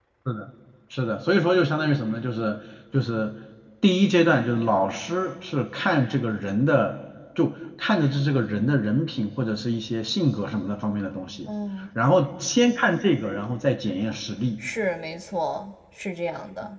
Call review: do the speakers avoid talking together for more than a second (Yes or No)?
Yes